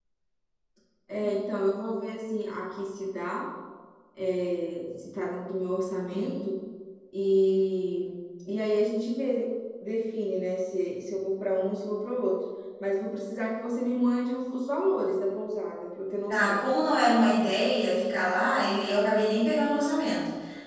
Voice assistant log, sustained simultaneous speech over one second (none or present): none